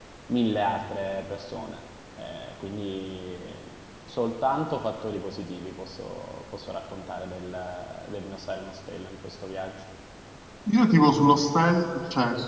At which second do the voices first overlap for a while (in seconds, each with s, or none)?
none